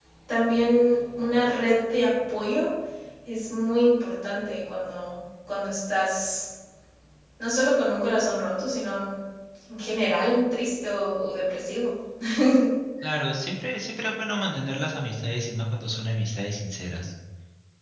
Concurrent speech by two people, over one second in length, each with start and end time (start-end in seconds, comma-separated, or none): none